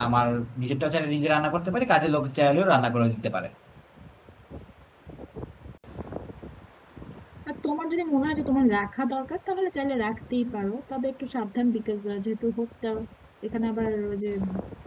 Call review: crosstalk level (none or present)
none